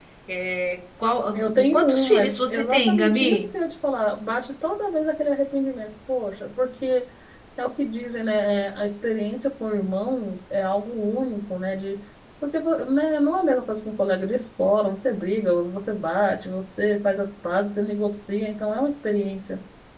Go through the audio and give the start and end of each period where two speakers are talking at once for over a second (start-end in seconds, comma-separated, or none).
1.3-3.5